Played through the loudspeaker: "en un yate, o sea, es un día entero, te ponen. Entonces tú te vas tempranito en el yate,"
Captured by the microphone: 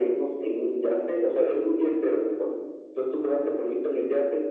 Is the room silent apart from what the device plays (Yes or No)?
Yes